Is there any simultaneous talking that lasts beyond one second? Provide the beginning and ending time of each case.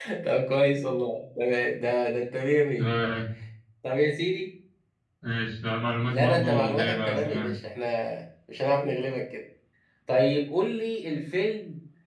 6.1-7.5

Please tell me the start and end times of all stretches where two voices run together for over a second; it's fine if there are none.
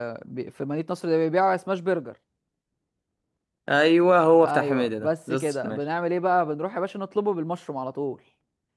4.4-5.8

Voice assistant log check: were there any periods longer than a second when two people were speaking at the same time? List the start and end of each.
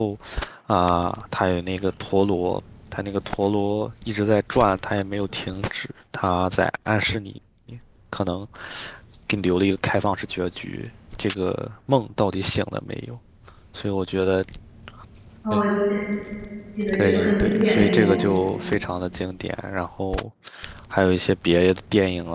16.9-18.2

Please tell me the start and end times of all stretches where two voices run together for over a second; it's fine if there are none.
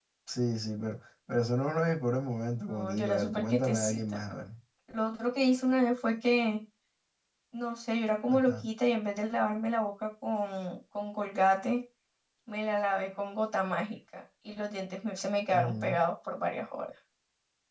2.7-4.2

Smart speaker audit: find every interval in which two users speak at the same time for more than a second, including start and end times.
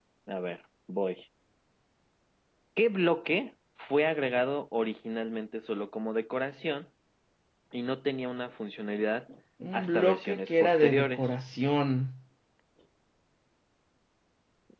9.7-11.3

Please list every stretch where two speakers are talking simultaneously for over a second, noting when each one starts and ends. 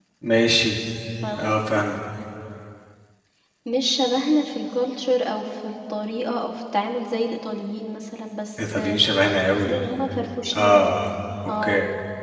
none

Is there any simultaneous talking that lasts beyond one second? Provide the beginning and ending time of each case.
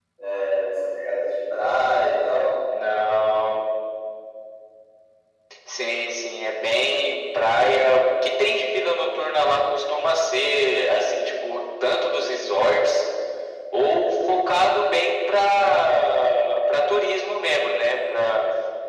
none

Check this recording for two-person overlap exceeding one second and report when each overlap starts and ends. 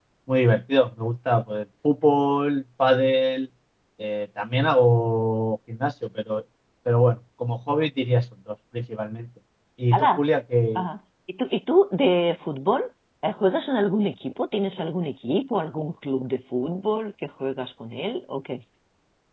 none

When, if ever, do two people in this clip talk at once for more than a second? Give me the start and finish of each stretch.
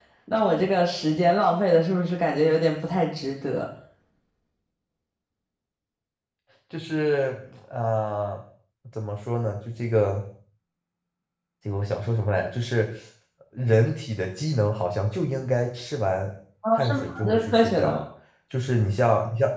16.7-17.9

